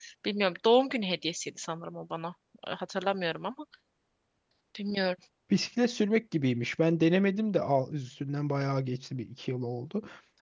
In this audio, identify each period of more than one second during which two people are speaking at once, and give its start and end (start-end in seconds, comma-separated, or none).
none